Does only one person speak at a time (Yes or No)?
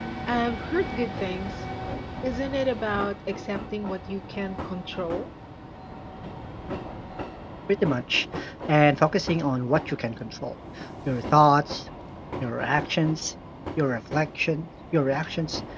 Yes